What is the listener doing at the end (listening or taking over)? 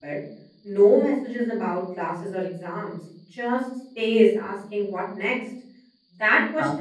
listening